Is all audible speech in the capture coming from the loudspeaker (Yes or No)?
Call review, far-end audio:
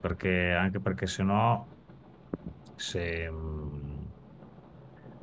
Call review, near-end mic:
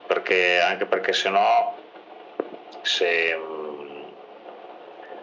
Yes